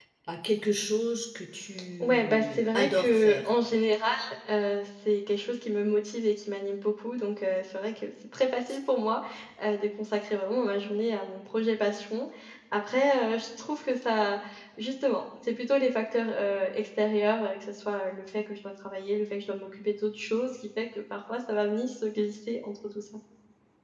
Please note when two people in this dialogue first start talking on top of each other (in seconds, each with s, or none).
2.0 s